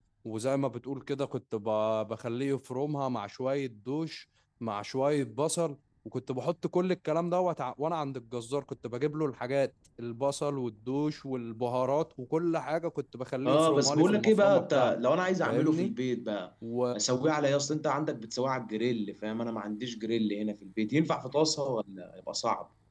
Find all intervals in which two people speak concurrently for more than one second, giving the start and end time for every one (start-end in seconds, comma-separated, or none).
13.4-14.9